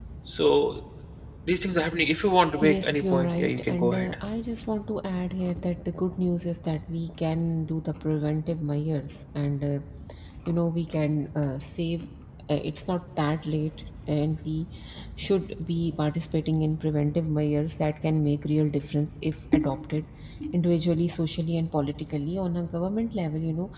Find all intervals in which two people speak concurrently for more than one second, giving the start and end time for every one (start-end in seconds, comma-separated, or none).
2.6-4.1